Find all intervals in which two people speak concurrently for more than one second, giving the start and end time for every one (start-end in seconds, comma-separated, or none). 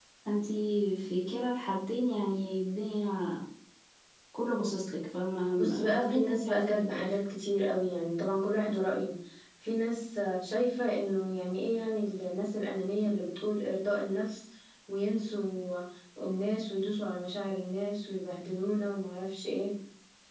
5.6-7.1